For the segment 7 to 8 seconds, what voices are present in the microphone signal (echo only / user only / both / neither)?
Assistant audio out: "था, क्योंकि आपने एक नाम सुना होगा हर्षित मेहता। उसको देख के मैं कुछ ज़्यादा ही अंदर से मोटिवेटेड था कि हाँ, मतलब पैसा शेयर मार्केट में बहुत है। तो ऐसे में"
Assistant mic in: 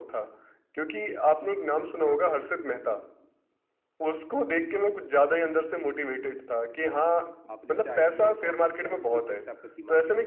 both